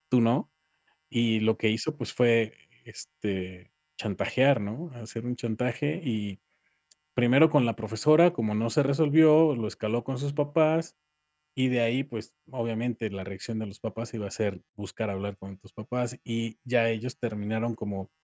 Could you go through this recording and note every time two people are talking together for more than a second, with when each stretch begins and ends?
none

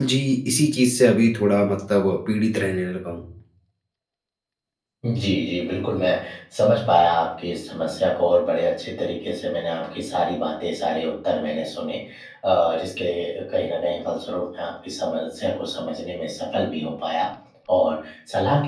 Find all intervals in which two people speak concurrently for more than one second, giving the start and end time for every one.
none

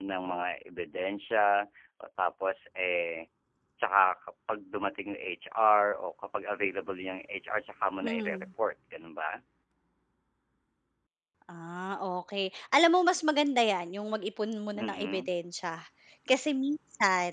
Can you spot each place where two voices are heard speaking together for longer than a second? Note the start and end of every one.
none

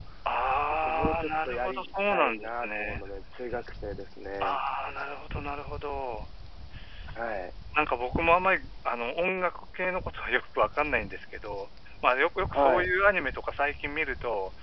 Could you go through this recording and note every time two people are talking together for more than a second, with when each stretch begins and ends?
0.7-3.0

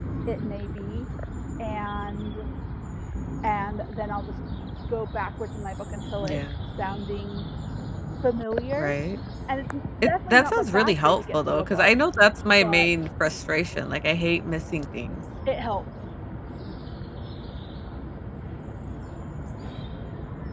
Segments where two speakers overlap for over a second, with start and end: 10.0-11.9

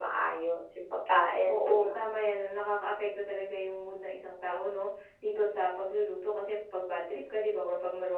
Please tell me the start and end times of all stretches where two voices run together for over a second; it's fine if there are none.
none

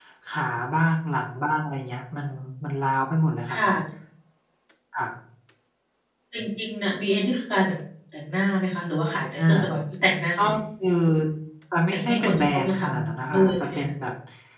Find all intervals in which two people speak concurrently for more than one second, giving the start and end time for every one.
11.9-13.9

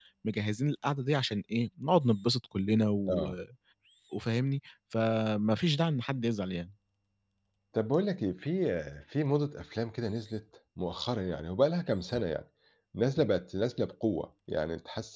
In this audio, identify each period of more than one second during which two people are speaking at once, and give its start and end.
none

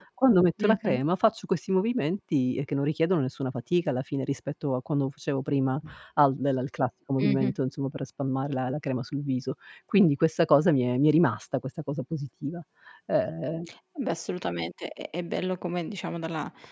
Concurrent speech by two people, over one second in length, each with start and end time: none

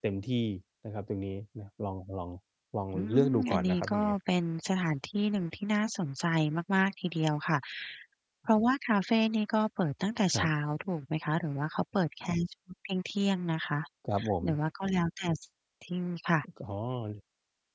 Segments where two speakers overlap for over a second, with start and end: 3.0-4.2

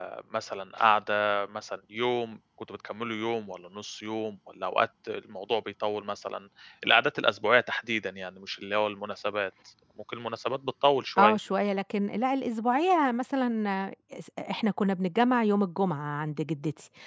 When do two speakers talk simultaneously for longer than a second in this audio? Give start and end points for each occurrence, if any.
none

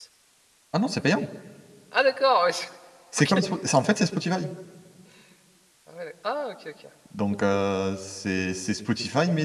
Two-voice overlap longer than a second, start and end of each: none

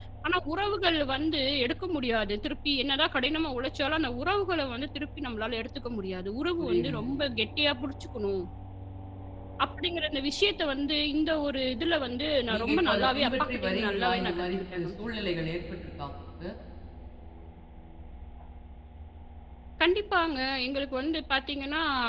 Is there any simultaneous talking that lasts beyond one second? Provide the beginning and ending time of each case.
12.5-14.9

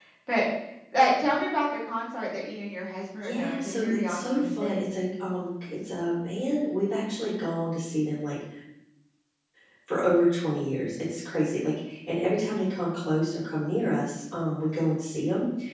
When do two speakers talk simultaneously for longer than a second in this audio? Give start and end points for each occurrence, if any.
3.2-4.8

